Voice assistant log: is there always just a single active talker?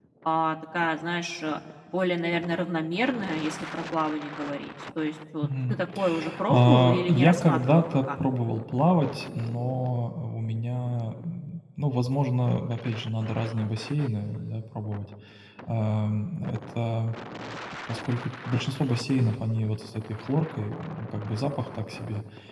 No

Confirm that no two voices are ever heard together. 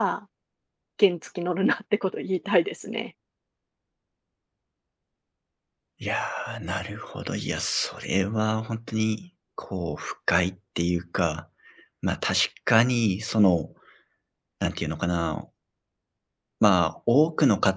Yes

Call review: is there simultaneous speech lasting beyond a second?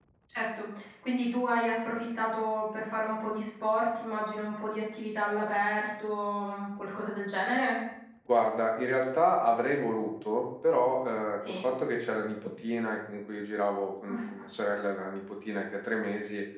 No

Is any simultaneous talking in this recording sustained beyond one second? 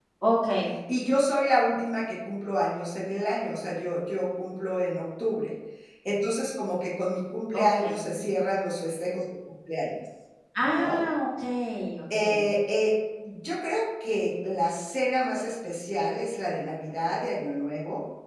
No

